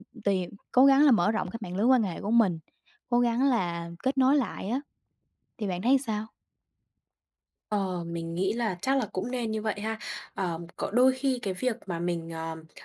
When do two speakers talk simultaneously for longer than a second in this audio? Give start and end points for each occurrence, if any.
none

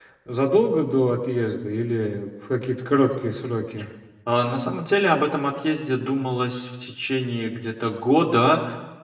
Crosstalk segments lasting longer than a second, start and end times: none

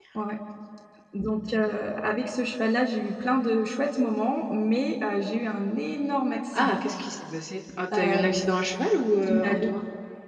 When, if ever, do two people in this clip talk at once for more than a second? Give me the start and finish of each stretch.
none

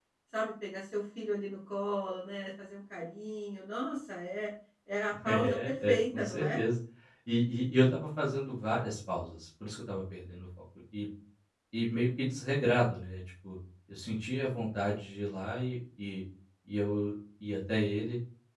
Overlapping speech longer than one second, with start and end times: 5.2-6.6

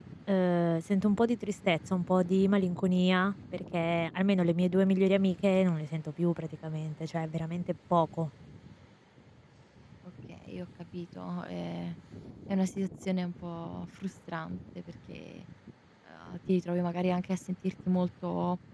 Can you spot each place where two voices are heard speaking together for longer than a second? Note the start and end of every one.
none

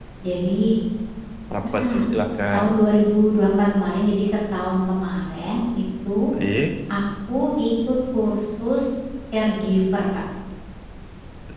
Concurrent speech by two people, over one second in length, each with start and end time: none

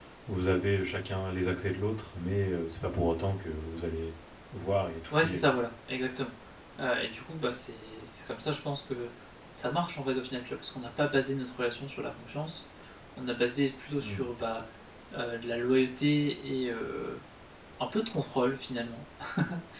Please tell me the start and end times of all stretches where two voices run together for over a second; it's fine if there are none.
none

